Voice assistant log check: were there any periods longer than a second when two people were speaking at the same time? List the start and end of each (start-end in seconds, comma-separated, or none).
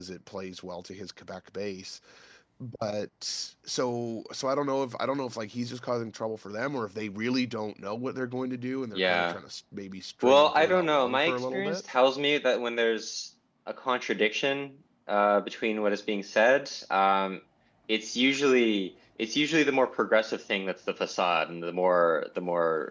10.2-11.8